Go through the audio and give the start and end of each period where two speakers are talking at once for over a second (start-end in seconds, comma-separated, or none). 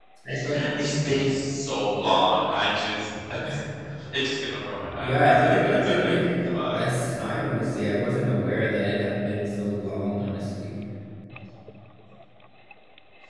5.0-6.9